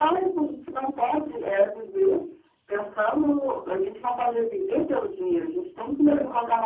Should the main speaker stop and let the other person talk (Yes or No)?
No